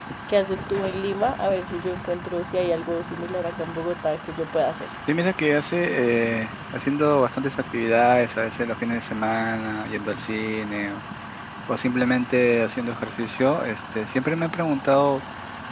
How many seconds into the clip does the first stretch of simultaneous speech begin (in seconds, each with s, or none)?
none